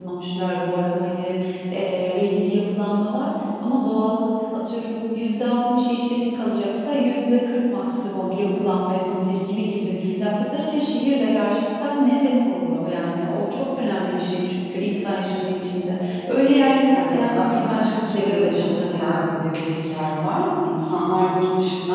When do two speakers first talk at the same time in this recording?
16.9 s

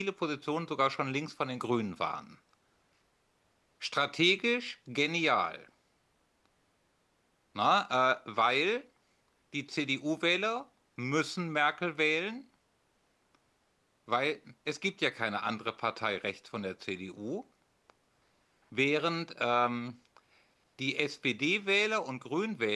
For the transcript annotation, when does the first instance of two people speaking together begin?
none

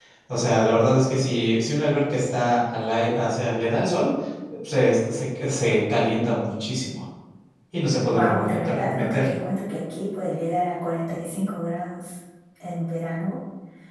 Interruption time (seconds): 8.1 s

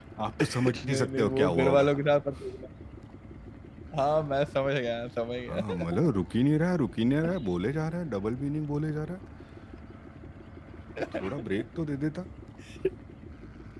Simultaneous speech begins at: 0.7 s

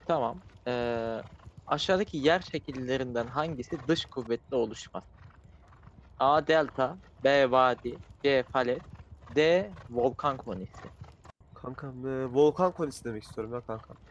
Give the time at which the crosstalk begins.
none

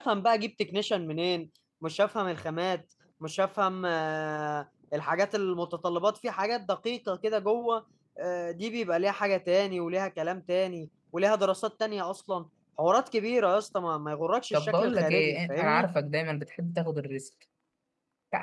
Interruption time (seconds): 14.5 s

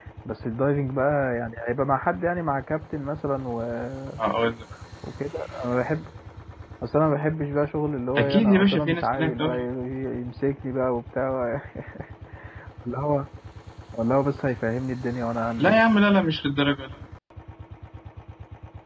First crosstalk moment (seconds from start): 8.2 s

